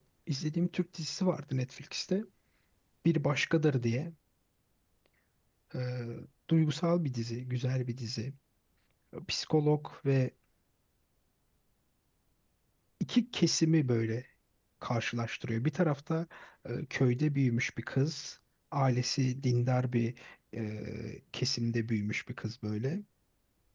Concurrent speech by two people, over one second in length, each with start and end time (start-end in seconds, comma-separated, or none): none